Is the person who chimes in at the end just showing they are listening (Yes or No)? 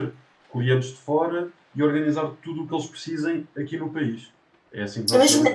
No